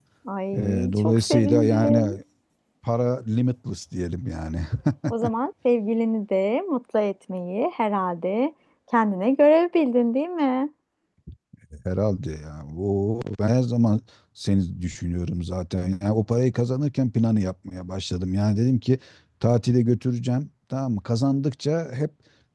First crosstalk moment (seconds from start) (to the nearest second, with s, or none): 1 s